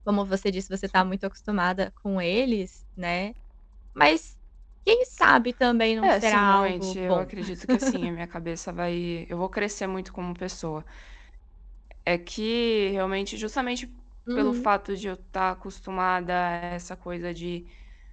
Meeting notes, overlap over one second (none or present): present